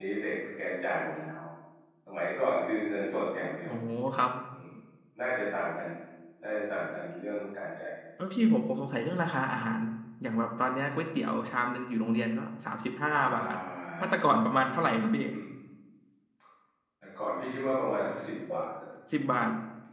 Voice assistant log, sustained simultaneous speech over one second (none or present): none